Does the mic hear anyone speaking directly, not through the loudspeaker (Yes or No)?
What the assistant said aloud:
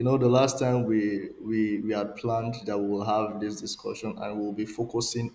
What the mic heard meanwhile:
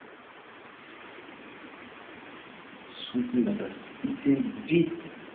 Yes